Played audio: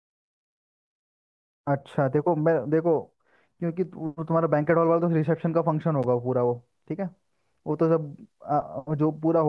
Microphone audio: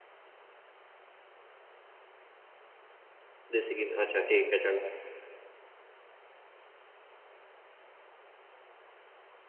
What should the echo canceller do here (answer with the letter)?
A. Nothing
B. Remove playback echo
A